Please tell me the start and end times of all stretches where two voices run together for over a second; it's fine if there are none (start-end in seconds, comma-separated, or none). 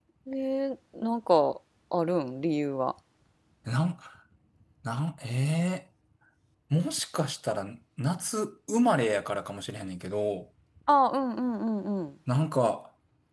none